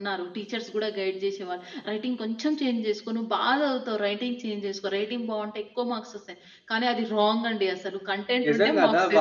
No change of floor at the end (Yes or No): No